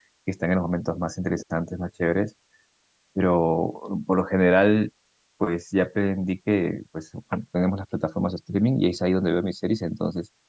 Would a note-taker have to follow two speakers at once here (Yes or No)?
No